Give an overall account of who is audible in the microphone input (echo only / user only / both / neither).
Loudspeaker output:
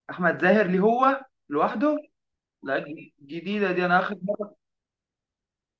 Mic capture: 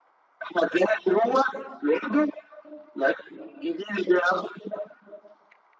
echo only